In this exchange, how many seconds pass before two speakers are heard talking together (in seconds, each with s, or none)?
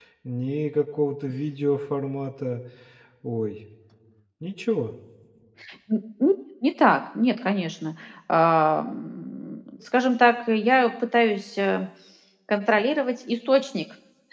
none